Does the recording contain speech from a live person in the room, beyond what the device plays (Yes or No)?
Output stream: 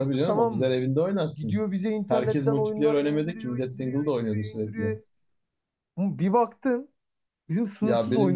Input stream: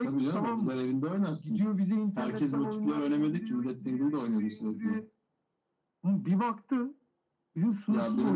No